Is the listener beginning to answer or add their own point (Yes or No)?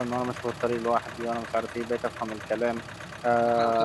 Yes